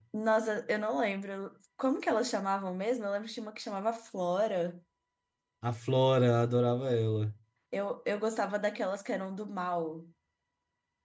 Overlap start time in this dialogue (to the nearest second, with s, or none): none